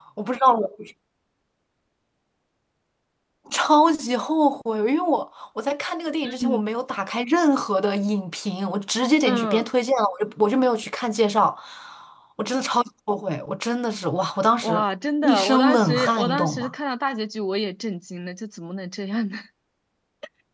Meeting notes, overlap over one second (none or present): present